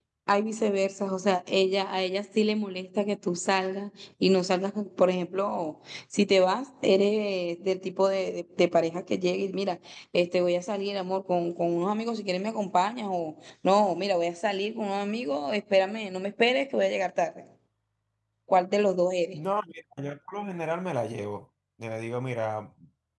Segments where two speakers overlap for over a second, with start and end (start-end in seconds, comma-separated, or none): none